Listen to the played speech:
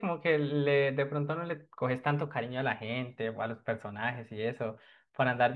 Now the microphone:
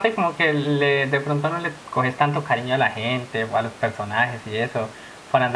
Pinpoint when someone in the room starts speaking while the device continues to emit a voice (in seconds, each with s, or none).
none